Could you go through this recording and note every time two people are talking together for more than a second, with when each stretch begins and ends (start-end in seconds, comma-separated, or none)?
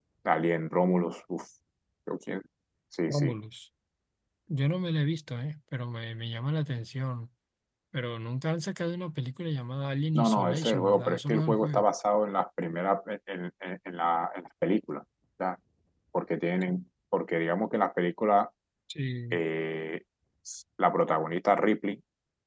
10.2-11.8